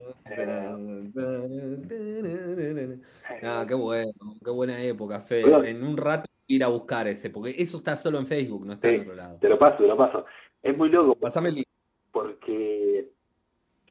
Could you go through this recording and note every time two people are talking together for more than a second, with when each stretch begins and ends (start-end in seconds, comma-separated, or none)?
none